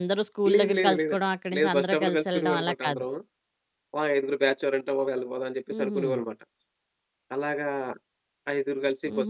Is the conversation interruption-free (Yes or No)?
No